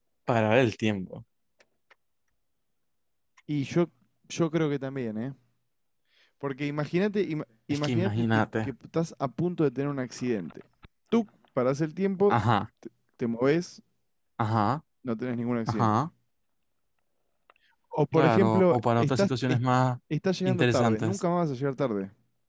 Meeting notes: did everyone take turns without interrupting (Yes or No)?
No